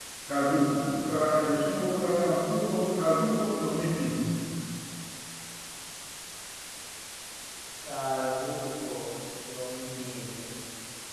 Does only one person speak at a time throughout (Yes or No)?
Yes